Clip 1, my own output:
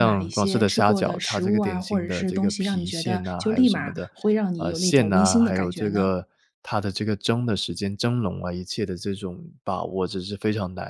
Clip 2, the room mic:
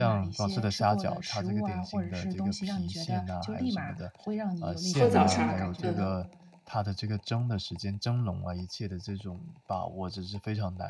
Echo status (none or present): present